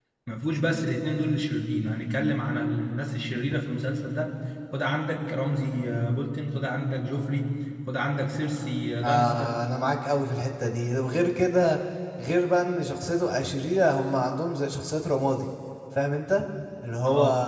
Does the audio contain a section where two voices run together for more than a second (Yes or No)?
No